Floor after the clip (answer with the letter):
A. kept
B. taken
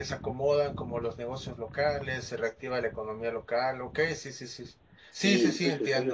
B